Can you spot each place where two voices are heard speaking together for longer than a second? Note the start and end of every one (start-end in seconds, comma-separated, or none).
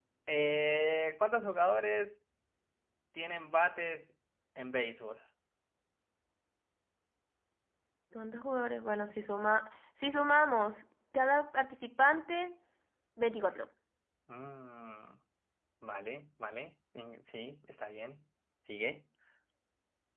none